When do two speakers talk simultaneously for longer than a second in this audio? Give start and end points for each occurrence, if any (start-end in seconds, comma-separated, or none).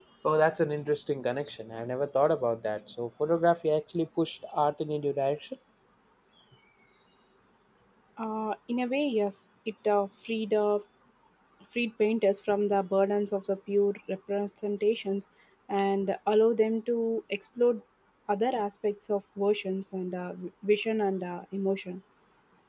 none